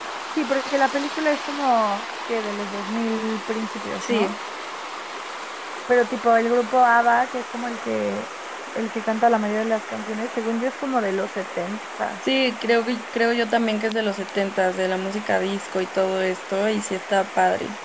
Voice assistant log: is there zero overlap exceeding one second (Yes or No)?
Yes